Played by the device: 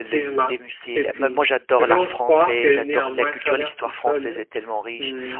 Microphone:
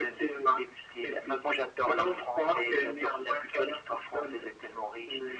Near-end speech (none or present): none